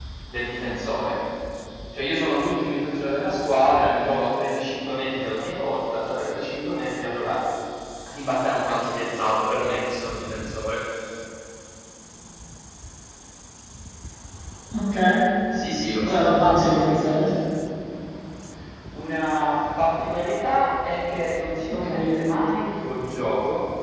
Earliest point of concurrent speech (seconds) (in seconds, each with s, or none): 16.1 s